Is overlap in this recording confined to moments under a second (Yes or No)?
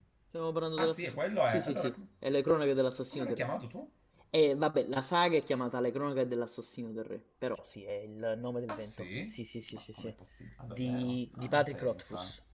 No